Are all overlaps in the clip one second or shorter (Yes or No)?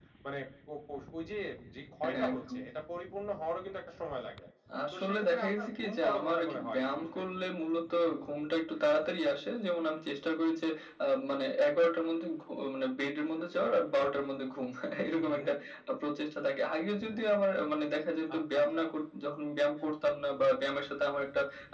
No